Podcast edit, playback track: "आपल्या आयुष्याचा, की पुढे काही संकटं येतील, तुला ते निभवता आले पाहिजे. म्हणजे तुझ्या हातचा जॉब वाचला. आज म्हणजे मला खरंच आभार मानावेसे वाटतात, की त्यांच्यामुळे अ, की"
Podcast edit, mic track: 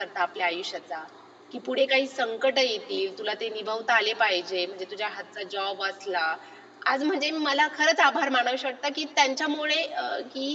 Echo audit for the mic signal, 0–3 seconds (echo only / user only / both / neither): echo only